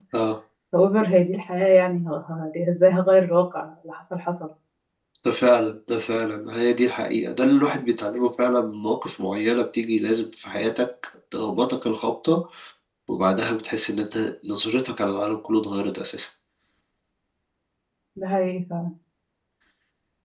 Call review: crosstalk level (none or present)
none